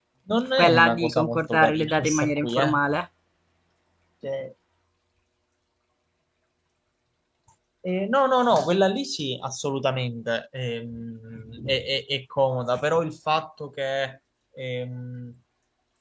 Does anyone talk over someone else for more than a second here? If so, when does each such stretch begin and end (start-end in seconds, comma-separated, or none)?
0.6-2.8